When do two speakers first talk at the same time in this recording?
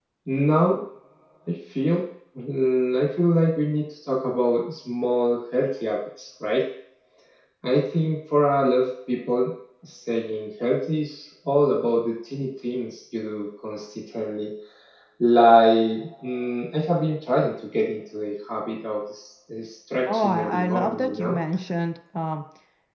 20 s

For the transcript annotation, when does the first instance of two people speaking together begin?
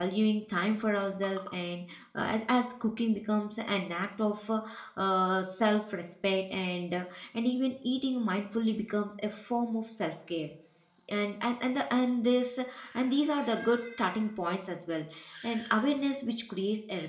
none

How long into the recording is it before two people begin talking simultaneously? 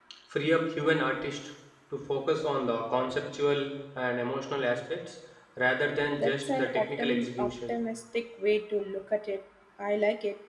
6 s

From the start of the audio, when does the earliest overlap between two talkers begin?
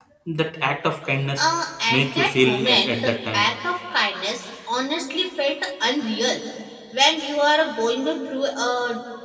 2 s

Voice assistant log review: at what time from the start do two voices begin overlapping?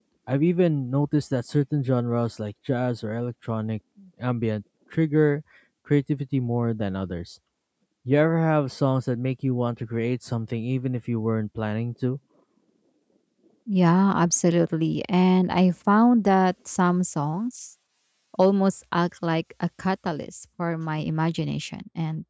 none

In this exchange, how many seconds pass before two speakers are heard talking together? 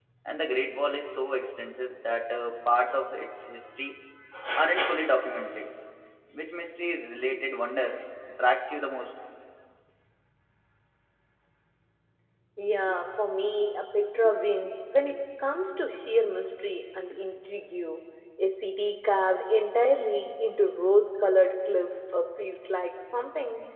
none

